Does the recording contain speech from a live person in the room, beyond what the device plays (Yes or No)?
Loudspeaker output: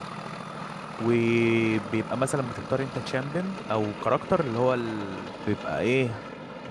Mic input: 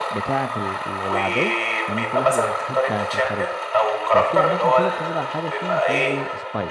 Yes